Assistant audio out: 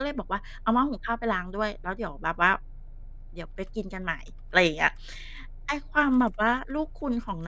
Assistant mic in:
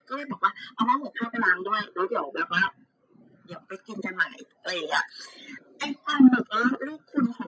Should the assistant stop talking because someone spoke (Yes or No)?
No